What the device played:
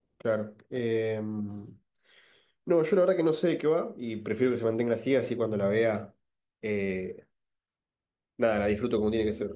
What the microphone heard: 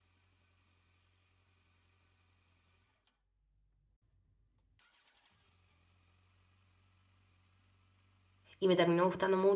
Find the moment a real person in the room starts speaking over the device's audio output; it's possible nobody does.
8.6 s

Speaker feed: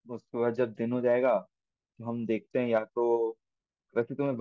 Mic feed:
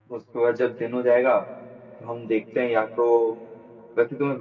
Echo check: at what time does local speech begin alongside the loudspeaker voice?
none

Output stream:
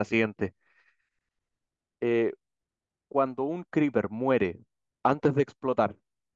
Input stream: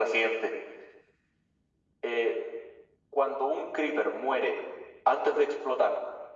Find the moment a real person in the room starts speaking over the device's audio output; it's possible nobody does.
none

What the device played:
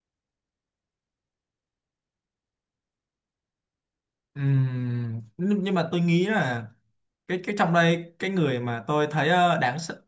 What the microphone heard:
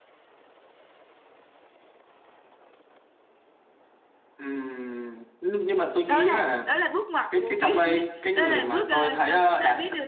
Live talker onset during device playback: 6.1 s

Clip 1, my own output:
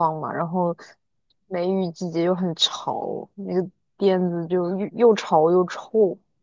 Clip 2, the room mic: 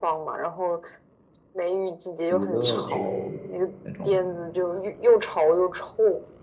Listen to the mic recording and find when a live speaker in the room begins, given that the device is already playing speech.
2.3 s

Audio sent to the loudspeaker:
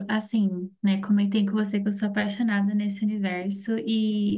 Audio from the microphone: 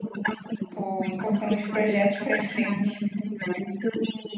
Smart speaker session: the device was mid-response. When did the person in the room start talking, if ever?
0.7 s

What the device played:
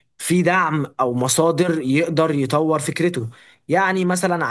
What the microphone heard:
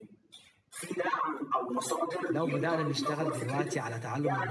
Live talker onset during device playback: 2.3 s

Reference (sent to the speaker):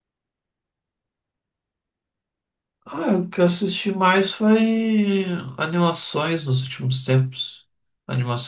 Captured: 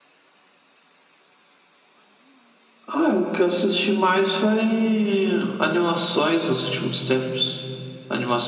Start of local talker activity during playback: none

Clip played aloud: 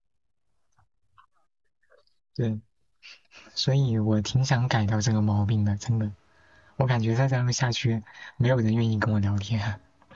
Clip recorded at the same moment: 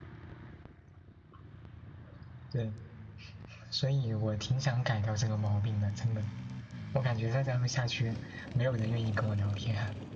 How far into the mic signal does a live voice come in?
none

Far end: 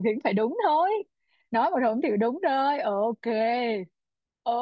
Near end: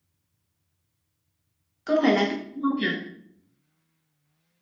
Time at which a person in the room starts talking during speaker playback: 1.8 s

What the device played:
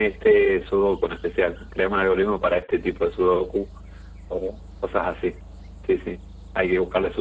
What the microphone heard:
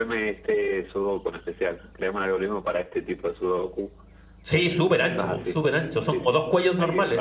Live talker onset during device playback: 4.4 s

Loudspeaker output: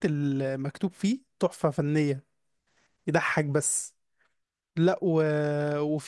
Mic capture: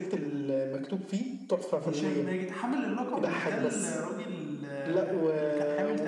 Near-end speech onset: 1.9 s

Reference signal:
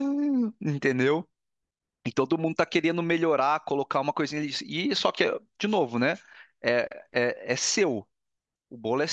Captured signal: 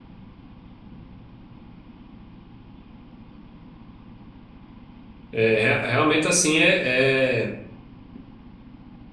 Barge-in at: 5.3 s

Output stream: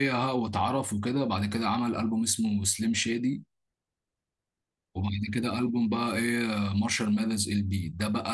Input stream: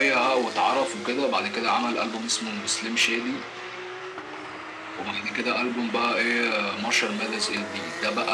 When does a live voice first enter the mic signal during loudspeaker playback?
none

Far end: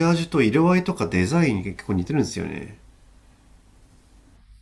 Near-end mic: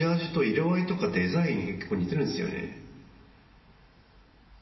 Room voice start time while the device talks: none

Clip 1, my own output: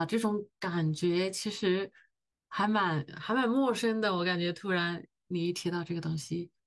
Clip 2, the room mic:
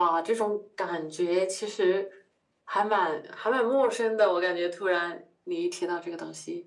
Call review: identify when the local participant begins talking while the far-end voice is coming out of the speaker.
none

